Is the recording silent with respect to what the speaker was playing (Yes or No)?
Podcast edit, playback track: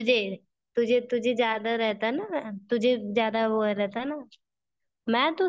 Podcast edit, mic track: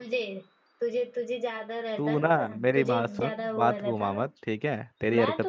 No